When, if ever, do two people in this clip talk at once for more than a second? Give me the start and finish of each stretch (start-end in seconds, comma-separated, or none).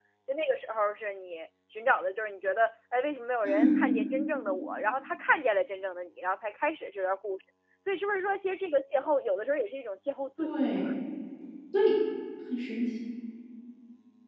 none